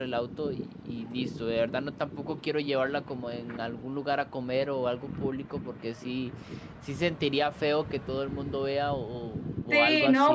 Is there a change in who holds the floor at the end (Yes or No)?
Yes